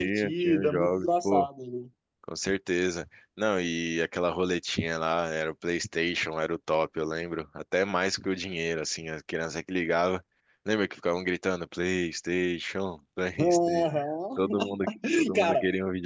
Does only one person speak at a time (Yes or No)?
No